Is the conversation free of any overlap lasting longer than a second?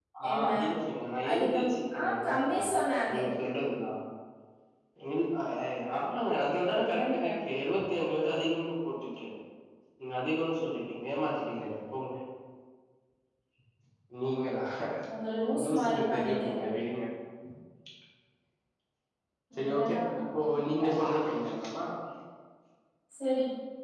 No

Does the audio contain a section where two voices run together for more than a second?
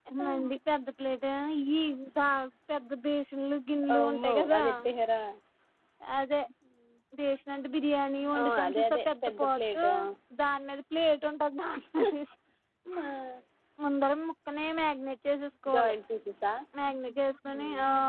Yes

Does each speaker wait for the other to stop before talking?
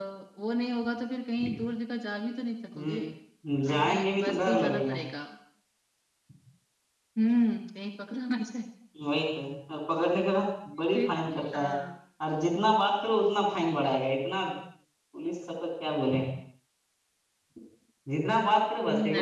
No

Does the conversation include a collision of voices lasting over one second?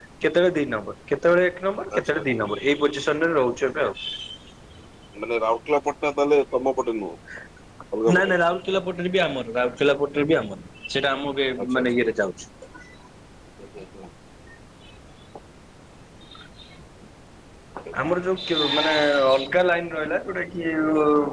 No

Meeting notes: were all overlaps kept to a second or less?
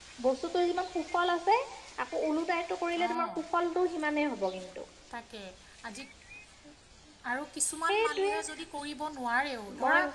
Yes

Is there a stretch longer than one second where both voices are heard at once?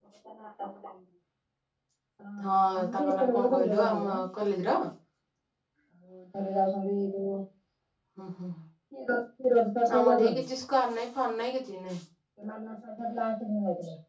Yes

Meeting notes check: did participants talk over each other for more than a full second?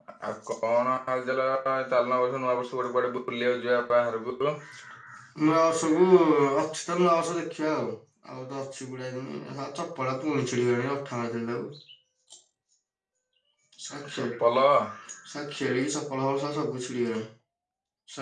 No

